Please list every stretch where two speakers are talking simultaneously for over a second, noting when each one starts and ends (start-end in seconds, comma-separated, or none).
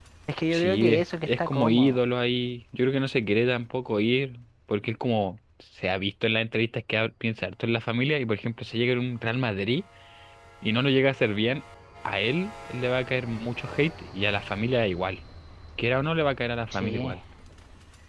0.5-2.0